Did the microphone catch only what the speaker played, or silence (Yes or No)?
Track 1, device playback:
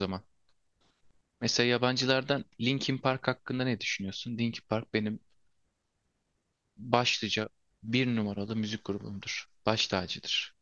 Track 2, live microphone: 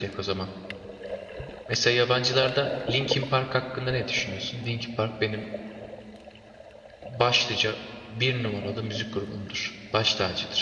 Yes